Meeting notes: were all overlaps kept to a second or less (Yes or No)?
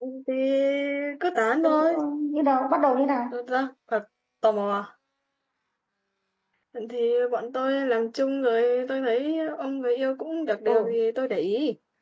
Yes